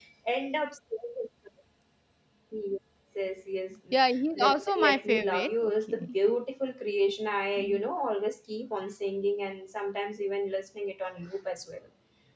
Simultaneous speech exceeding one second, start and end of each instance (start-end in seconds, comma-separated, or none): 4.4-6.2